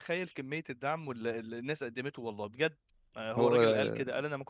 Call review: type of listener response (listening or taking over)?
listening